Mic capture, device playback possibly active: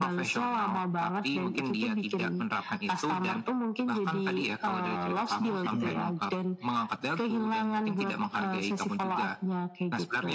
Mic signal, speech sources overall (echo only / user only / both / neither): both